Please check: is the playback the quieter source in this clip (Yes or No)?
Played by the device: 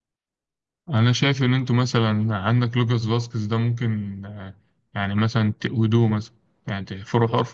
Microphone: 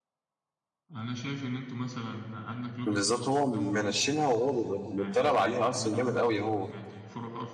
Yes